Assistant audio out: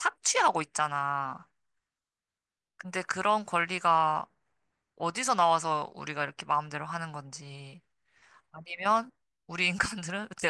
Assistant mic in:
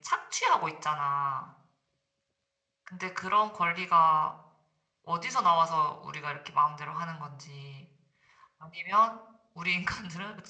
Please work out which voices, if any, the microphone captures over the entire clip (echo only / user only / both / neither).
echo only